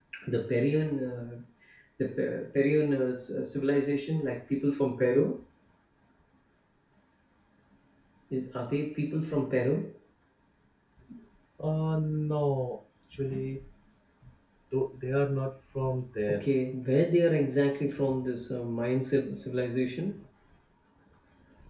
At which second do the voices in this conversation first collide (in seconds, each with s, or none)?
none